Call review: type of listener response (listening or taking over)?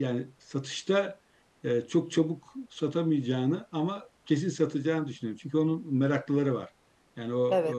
listening